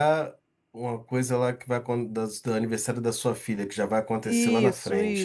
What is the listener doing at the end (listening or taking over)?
taking over